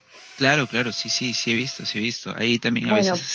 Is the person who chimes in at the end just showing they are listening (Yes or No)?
Yes